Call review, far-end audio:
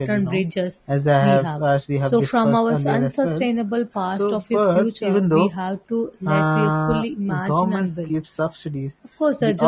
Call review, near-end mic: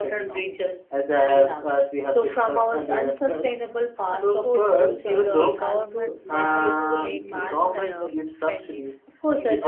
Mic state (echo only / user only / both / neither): both